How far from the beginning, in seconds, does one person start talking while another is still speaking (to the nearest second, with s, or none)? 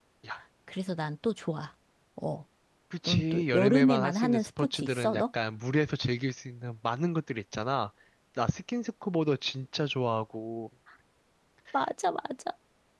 3 s